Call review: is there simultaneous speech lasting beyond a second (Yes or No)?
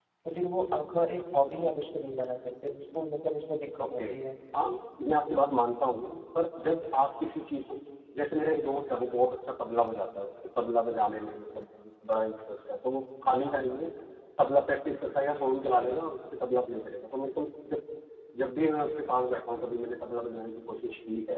No